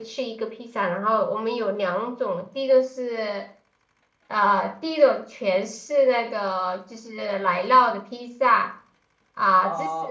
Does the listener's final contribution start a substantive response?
No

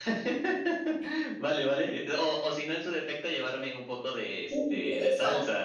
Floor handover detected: Yes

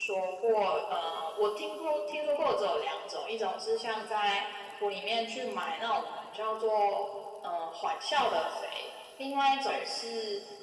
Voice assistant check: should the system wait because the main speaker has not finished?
Yes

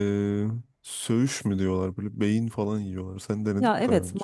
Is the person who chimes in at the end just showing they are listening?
No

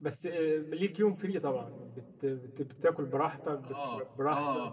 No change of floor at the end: No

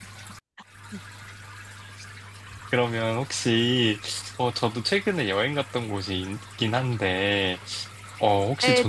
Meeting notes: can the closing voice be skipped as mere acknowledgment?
No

